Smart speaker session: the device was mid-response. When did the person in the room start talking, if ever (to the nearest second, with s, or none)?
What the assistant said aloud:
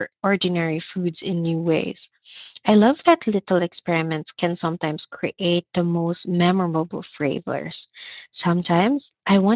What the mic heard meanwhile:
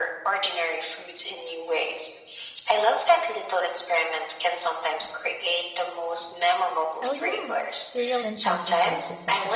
7 s